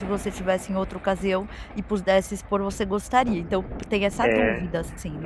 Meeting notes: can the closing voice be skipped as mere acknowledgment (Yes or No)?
No